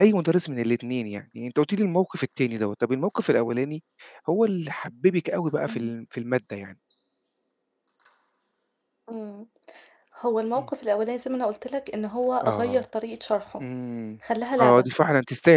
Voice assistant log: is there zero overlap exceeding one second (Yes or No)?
Yes